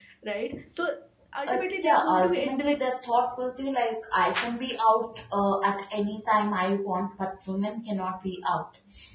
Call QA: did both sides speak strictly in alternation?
No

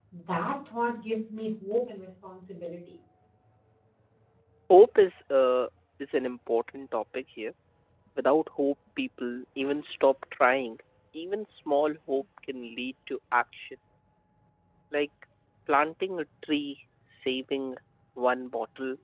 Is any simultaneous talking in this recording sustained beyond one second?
No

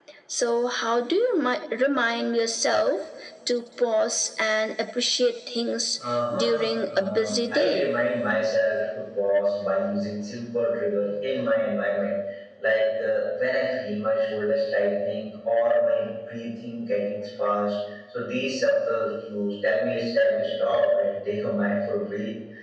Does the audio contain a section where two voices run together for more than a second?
Yes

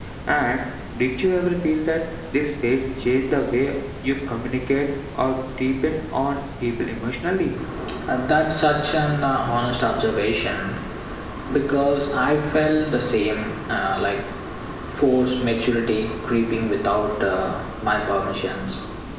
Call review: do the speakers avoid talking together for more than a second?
Yes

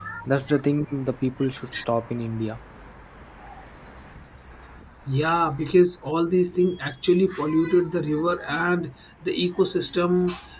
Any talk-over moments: No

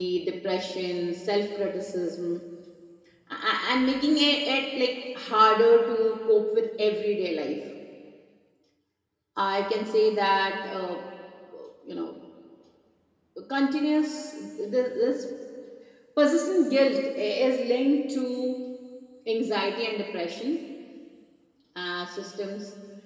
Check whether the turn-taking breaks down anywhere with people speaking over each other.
No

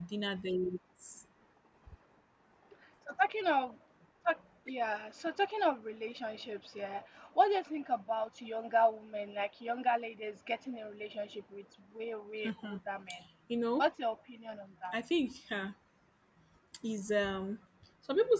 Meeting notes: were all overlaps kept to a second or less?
Yes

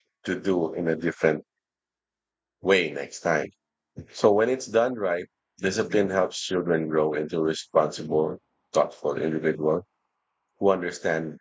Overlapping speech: No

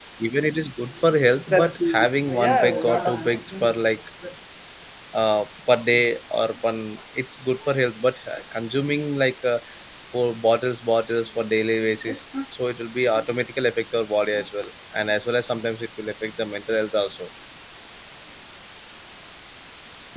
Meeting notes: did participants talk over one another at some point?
Yes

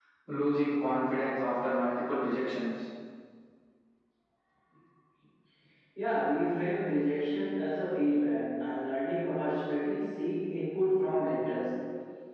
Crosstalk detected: No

